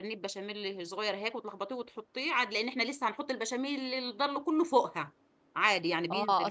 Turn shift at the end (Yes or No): Yes